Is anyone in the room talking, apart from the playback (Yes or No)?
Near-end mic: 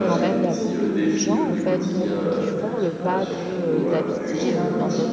Yes